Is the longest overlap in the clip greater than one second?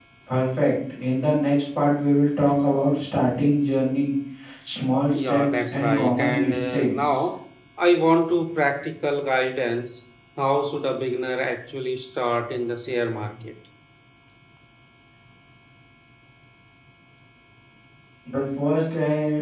Yes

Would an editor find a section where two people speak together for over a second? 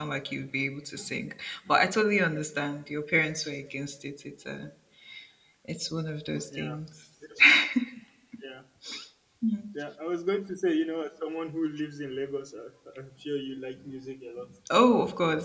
No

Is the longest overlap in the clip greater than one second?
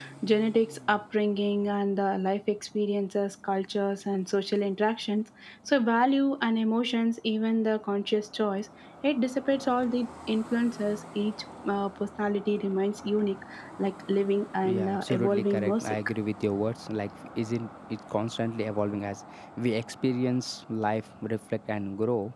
Yes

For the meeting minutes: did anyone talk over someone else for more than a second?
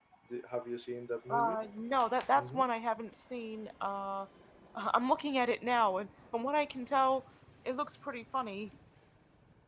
No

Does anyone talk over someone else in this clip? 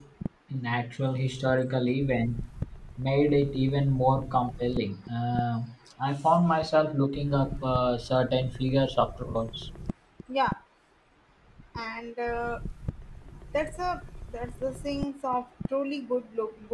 No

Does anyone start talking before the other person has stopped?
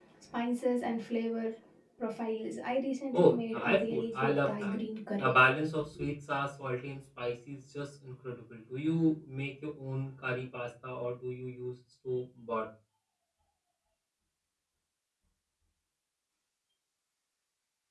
Yes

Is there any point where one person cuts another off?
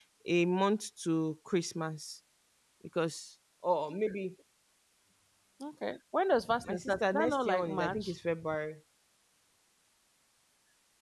Yes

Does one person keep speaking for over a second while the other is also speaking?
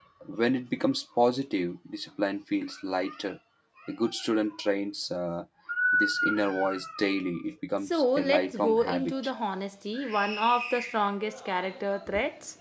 Yes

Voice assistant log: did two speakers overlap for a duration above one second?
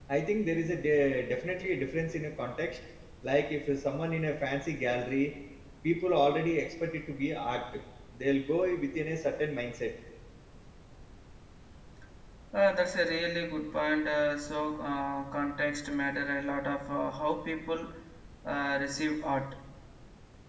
No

